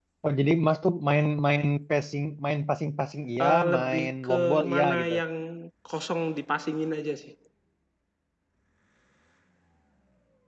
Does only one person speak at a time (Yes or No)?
No